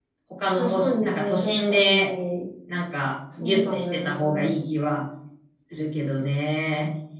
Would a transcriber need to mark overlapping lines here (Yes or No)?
Yes